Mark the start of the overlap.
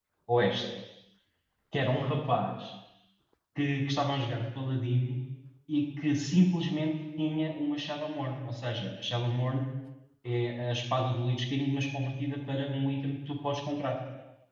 none

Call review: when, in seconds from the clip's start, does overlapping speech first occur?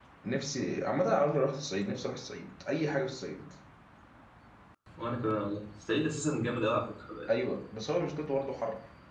none

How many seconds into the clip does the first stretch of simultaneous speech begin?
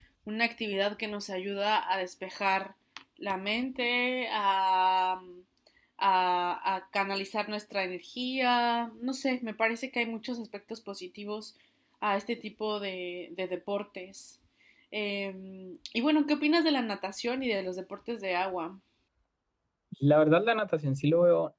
none

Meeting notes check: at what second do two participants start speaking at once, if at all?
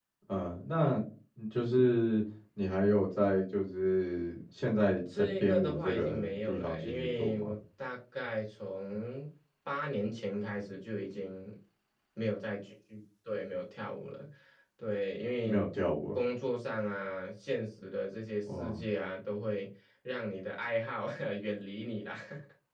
5.2 s

